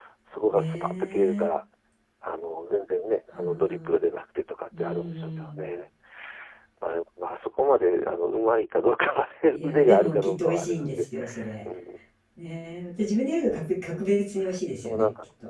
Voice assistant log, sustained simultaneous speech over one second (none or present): present